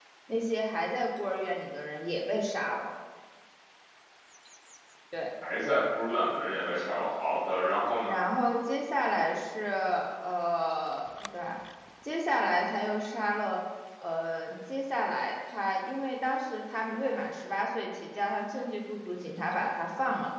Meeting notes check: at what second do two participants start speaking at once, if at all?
none

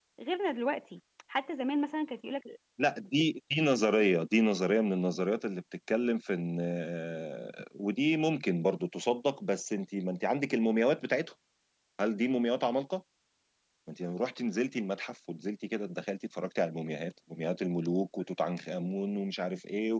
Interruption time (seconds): none

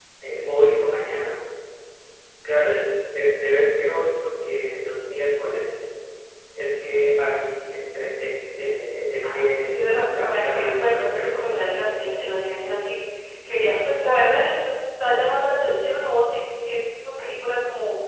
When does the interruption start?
9.2 s

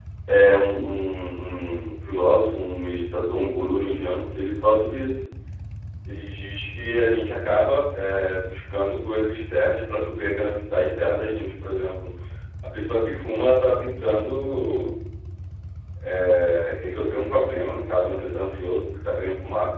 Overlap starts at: none

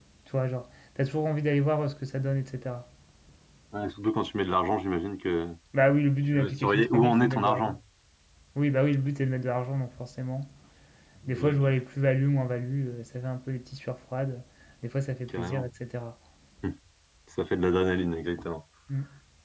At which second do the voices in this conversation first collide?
6.3 s

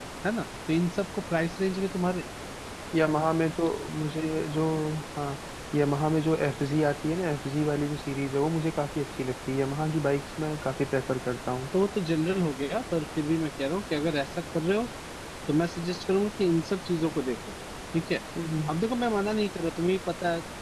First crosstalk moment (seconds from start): none

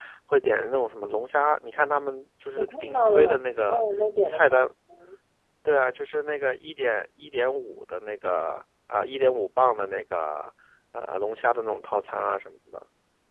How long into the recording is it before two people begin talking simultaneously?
2.6 s

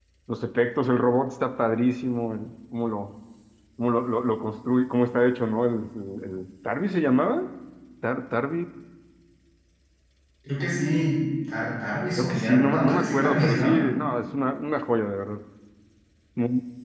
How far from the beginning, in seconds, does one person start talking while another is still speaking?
12.2 s

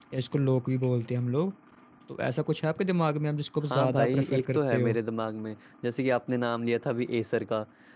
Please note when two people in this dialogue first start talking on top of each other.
3.7 s

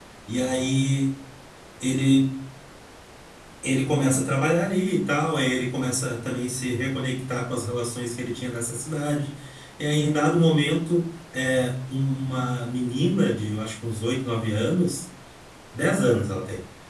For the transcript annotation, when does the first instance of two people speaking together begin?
none

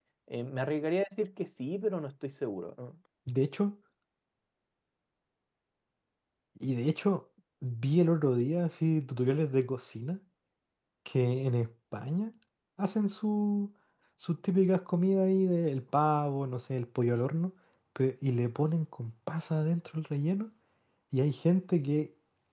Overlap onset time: none

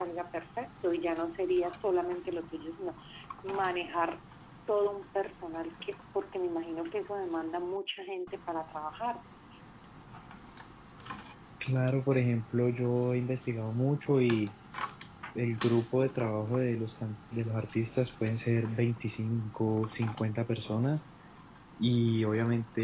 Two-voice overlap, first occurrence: none

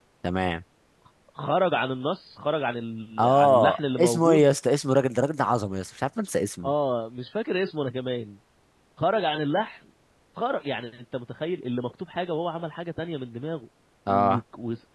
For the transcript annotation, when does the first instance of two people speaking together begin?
3.2 s

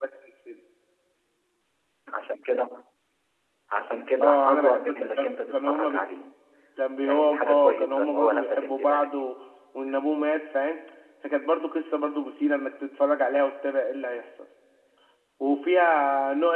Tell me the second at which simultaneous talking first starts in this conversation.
4.2 s

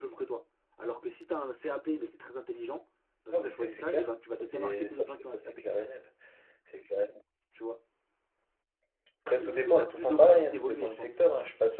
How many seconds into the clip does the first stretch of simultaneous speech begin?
3.3 s

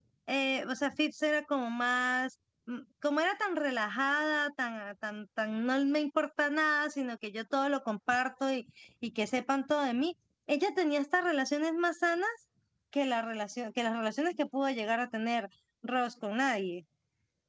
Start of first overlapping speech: none

